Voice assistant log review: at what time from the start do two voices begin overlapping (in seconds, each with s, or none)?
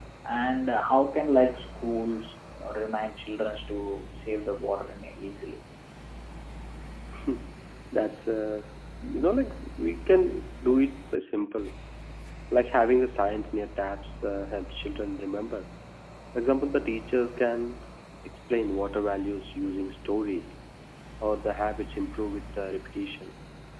none